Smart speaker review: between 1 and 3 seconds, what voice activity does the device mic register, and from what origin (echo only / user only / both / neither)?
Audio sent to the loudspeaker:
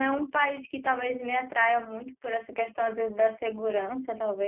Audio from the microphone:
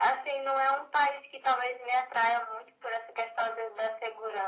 echo only